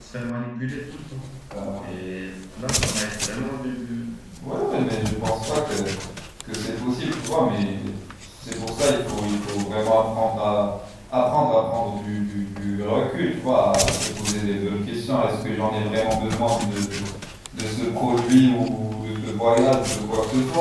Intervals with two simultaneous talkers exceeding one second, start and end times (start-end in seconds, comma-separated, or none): none